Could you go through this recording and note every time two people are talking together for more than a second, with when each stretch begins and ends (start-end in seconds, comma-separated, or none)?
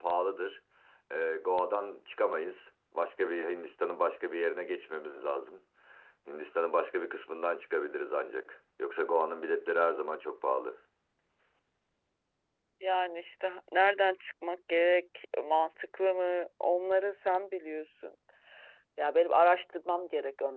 none